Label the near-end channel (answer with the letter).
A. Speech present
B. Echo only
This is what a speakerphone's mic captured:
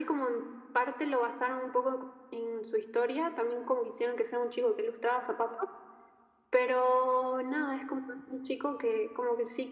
B